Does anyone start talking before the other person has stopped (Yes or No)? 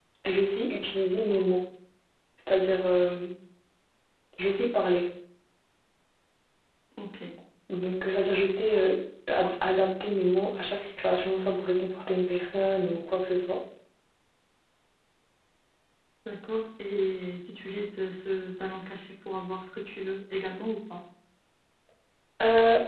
No